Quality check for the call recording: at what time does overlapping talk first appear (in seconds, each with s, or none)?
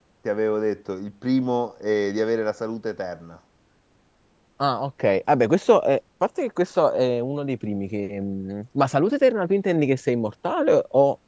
none